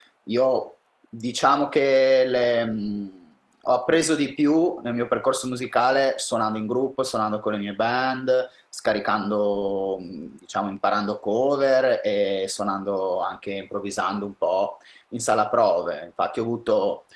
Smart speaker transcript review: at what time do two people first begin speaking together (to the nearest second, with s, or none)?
none